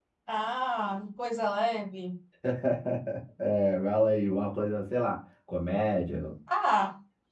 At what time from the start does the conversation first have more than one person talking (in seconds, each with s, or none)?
none